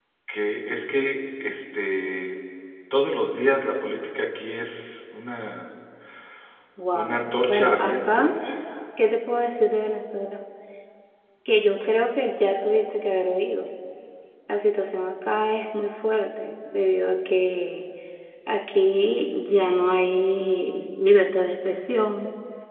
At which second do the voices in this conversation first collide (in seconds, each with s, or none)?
6.9 s